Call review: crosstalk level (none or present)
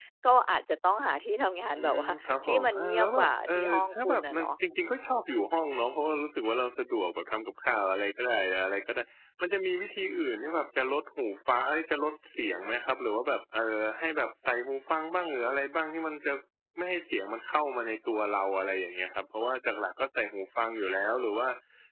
present